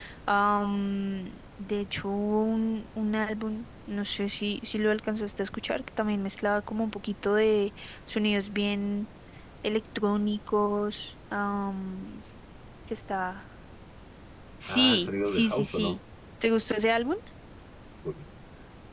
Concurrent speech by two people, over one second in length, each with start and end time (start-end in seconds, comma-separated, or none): 14.7-16.0